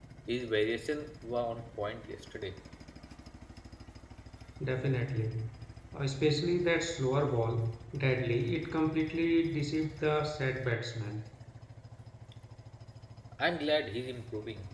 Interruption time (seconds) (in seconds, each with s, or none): none